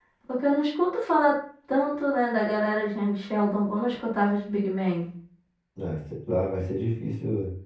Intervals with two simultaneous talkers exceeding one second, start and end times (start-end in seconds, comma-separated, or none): none